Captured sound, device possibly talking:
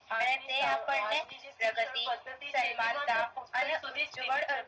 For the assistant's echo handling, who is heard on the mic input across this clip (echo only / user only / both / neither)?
echo only